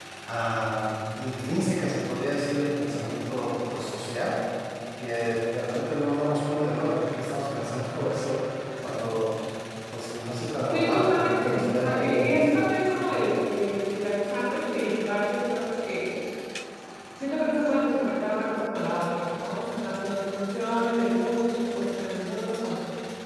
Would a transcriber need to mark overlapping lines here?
Yes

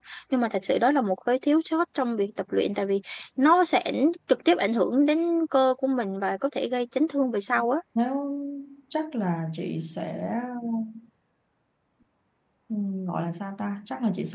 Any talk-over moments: No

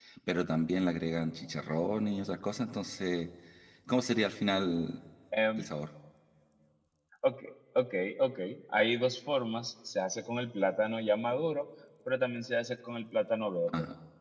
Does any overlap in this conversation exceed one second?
No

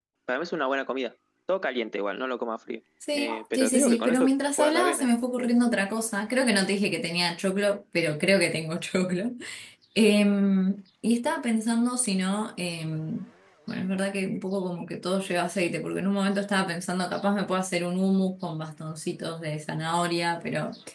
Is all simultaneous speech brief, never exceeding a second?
No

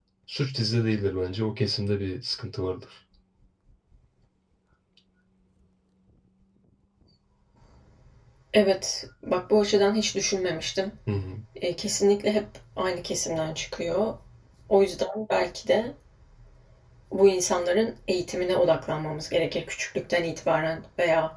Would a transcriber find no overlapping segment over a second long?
Yes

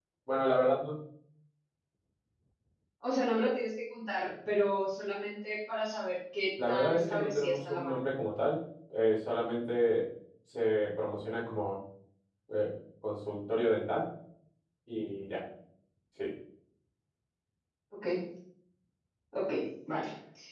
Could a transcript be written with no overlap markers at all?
No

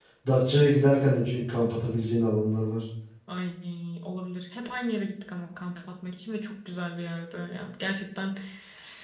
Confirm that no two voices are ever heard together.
Yes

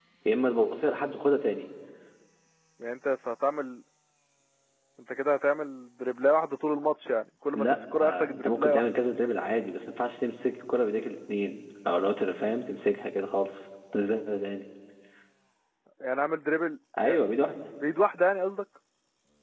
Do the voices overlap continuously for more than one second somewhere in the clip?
Yes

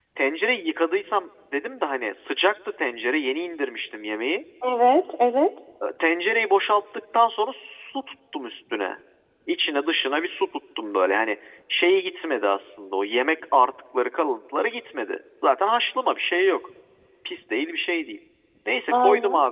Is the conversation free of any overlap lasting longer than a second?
Yes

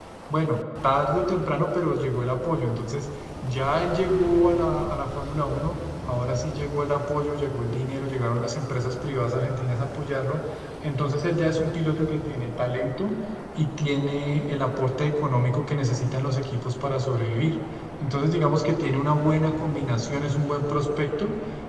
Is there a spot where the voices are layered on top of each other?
No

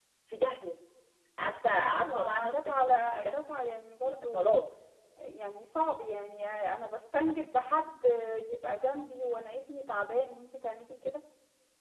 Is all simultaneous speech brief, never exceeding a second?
No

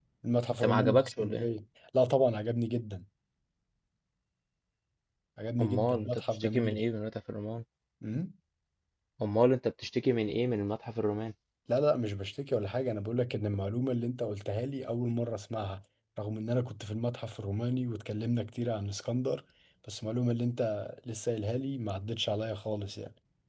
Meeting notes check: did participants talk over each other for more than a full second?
Yes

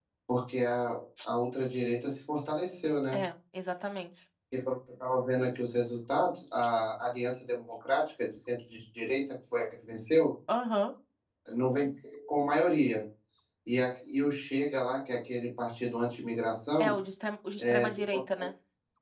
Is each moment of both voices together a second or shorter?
Yes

